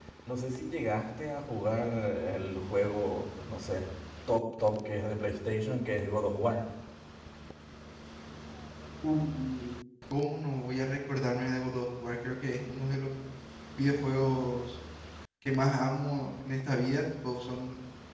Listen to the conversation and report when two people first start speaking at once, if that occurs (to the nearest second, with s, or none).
none